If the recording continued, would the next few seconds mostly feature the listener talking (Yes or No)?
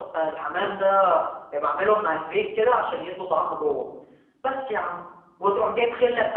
No